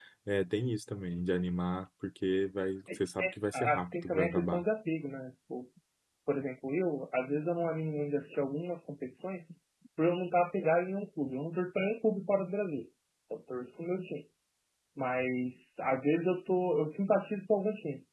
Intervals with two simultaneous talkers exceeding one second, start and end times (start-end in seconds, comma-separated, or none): 2.9-4.6